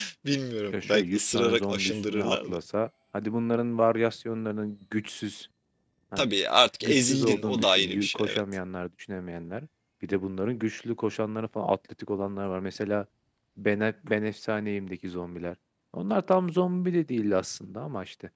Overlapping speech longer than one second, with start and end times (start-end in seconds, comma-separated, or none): 0.7-2.6, 6.8-8.4